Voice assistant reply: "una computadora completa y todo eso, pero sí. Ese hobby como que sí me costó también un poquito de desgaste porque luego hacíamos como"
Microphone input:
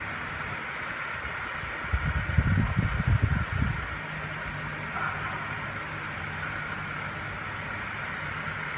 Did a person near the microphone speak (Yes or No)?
No